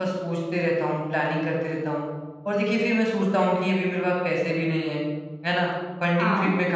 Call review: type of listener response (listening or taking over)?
listening